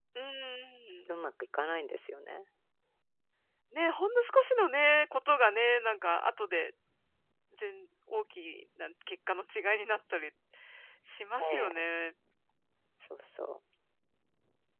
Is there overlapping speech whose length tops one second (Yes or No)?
No